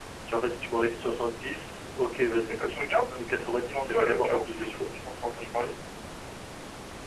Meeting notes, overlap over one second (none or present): present